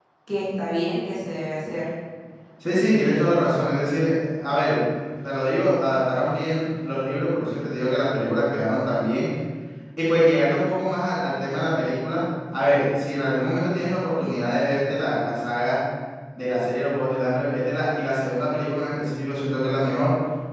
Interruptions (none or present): none